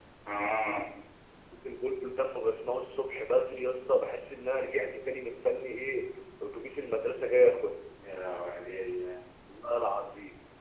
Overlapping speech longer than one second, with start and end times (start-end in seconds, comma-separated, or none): none